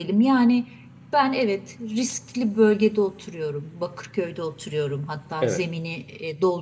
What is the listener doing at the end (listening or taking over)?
listening